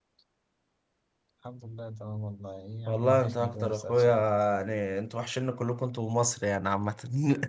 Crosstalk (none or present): present